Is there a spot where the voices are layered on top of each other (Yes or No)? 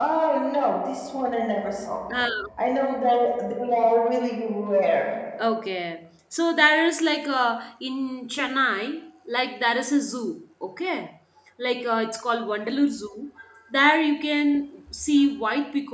No